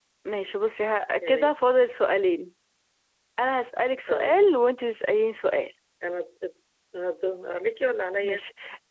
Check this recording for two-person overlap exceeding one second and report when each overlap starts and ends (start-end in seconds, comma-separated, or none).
none